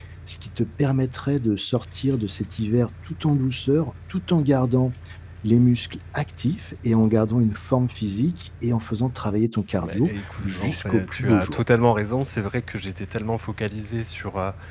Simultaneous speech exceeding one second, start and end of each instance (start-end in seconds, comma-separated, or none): 9.8-11.6